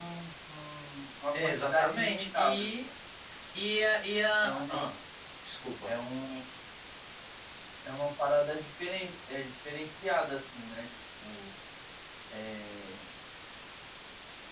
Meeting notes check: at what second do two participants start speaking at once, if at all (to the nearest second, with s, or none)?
1 s